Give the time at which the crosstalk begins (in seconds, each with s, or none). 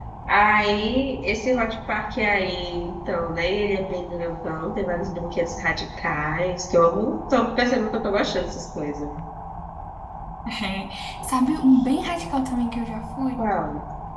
none